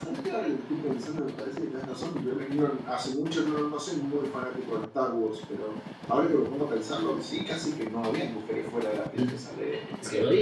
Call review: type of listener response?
taking over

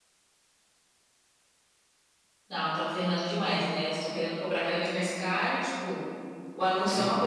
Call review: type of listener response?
listening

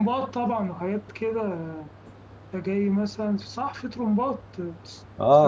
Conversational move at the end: taking over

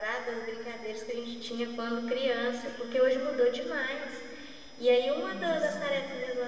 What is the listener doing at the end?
listening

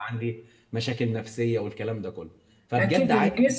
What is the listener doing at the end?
taking over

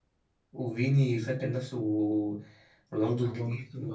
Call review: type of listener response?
taking over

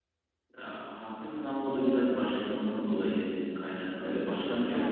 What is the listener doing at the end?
listening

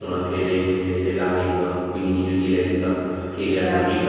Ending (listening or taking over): listening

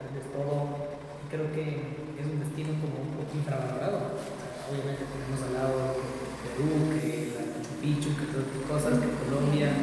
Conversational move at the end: listening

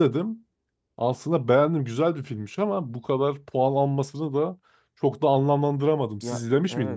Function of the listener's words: taking over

